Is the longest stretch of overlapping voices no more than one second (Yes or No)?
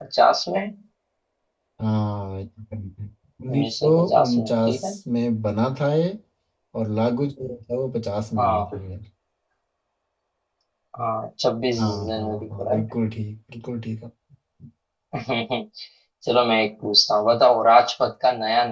No